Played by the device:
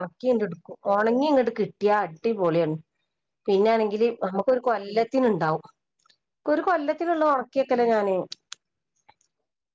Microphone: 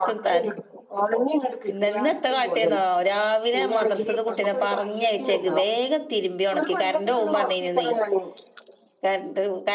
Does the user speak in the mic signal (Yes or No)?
Yes